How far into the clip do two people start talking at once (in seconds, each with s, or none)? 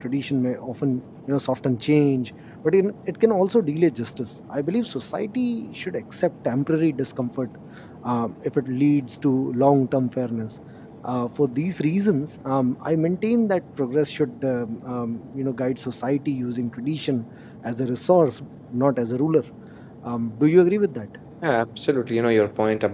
none